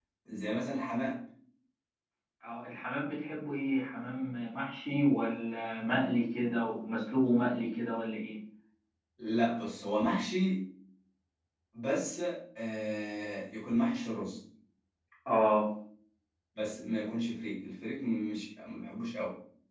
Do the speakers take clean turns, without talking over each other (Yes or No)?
Yes